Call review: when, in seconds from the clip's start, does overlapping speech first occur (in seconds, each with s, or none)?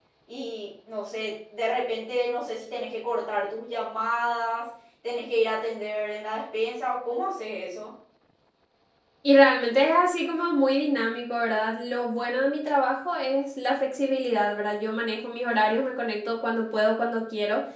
none